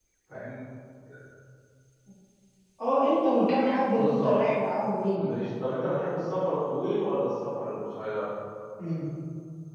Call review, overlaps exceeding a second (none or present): none